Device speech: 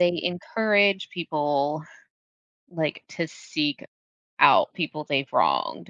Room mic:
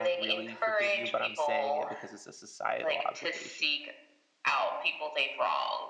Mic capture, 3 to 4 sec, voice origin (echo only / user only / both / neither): both